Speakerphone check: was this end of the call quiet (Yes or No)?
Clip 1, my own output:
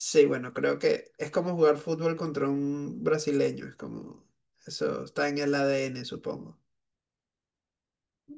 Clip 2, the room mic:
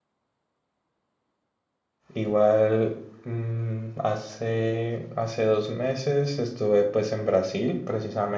No